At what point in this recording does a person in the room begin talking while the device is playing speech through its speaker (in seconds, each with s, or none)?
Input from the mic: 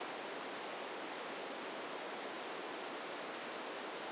none